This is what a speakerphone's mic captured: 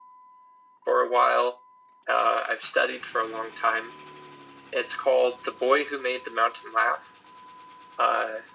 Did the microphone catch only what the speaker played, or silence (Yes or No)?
Yes